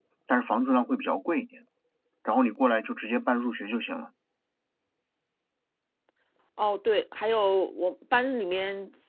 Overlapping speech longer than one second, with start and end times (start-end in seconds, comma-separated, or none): none